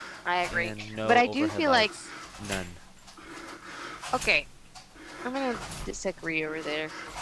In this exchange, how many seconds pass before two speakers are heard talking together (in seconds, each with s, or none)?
0.5 s